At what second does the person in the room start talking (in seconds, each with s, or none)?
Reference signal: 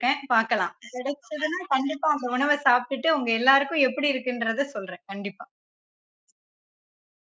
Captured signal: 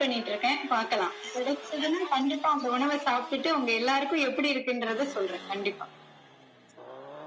none